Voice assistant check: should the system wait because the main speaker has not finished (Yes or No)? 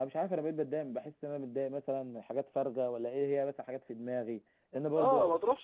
No